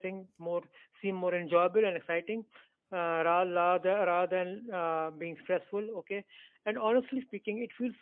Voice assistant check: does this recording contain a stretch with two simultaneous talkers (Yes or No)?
No